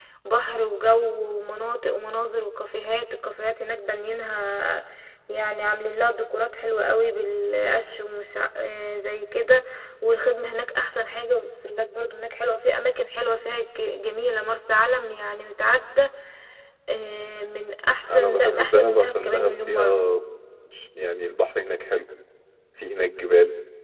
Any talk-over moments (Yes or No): Yes